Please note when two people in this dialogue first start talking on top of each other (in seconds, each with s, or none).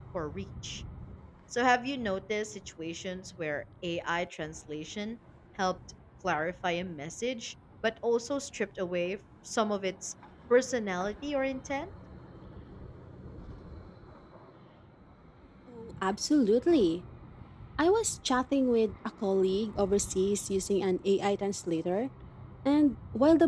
none